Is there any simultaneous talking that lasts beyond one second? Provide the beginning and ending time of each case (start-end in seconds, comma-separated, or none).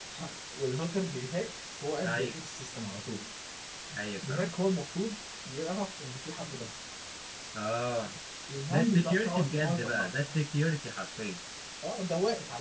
8.7-10.1